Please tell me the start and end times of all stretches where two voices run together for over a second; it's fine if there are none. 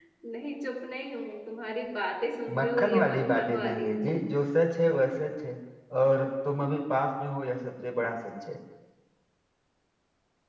2.6-3.9

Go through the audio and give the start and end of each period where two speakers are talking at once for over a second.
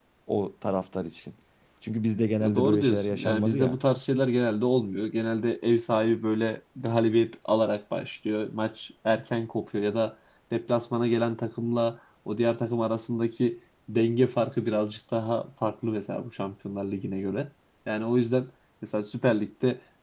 2.4-3.8

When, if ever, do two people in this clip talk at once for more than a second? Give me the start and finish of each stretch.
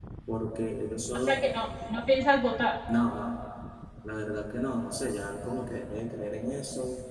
none

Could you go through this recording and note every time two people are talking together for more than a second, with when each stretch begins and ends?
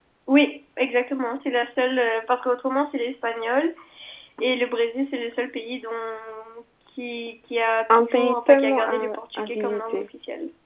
7.9-10.0

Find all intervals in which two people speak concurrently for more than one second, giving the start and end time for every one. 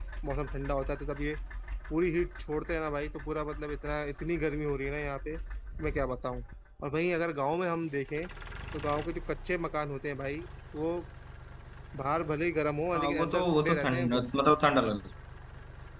13.0-14.3

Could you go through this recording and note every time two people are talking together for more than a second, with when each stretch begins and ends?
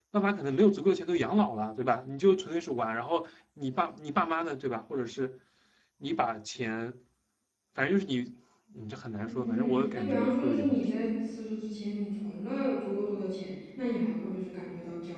9.2-10.9

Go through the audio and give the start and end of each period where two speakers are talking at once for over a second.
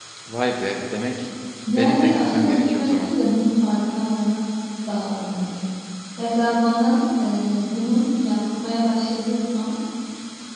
1.7-3.1

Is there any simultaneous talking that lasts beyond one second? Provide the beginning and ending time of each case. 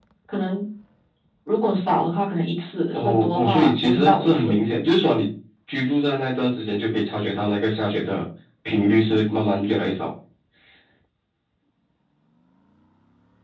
2.9-4.6

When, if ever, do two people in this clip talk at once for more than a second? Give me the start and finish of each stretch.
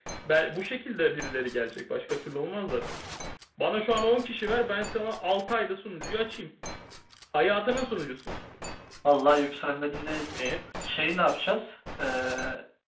none

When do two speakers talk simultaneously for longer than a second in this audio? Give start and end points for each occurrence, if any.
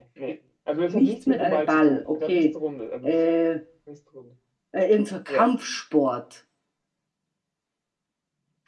0.8-2.4

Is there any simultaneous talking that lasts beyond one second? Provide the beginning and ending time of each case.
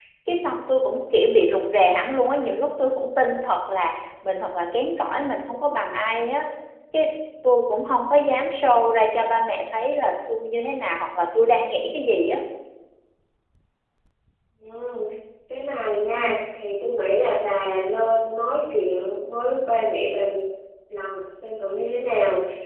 none

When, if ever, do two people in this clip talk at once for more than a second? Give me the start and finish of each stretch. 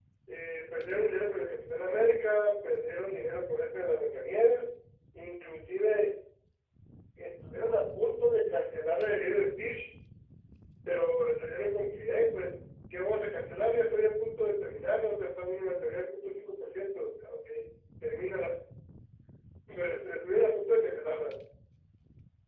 none

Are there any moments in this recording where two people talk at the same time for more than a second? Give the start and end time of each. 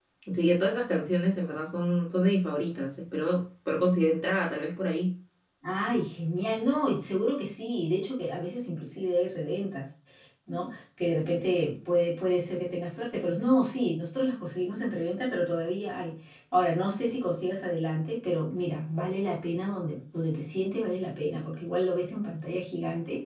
none

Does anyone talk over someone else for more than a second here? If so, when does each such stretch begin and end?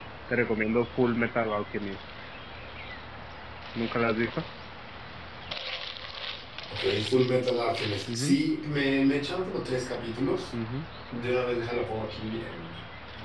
none

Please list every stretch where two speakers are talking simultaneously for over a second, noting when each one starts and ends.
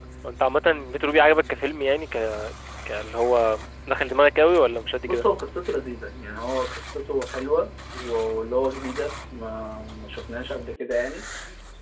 none

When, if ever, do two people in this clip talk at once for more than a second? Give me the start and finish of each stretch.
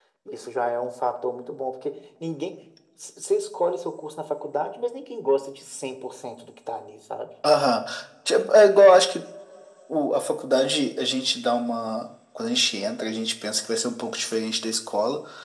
none

